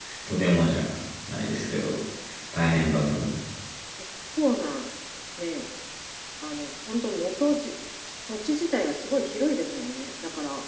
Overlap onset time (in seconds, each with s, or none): none